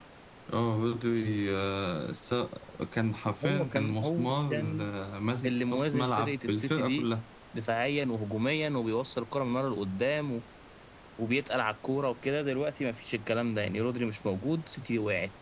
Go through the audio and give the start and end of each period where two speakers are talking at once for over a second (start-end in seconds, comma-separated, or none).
3.5-4.9, 5.5-7.1